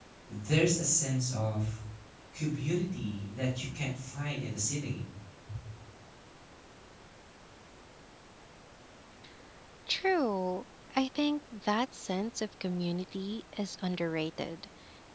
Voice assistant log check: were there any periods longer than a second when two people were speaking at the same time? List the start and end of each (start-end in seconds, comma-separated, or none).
none